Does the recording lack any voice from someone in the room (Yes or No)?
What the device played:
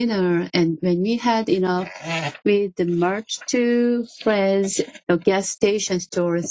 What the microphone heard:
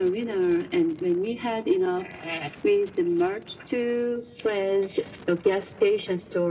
Yes